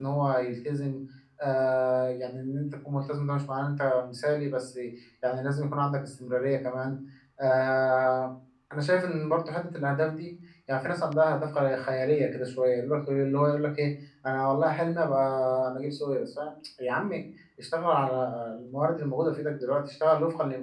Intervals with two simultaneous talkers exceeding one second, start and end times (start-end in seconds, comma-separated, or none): none